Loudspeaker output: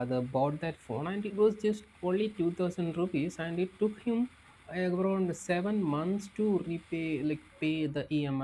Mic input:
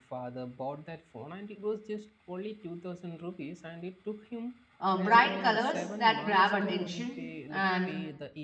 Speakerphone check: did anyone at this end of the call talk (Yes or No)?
Yes